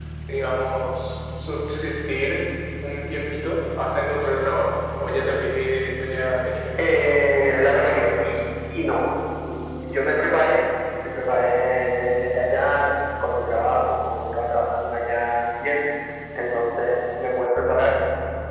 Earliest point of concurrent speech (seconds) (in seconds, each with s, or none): 6.8 s